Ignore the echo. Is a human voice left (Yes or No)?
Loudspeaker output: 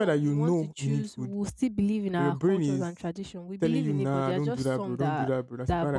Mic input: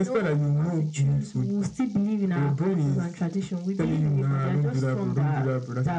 No